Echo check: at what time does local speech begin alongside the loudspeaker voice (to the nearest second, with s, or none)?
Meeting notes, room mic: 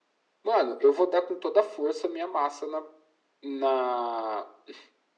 none